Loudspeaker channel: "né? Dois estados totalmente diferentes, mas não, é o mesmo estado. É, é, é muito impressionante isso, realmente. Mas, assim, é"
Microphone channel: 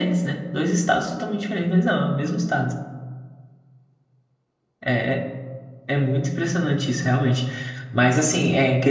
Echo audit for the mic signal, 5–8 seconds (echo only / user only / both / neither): echo only